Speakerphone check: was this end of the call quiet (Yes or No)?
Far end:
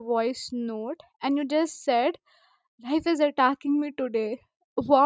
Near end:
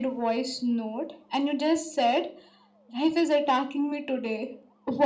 Yes